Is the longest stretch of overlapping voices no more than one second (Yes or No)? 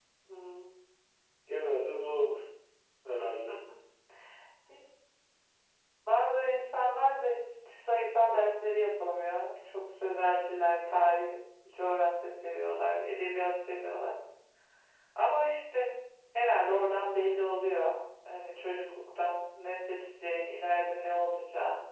Yes